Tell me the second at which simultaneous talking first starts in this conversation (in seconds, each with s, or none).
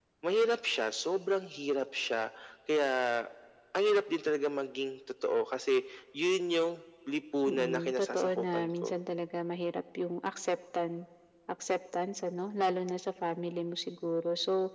7.5 s